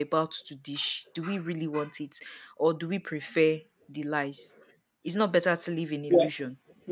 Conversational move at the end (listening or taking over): taking over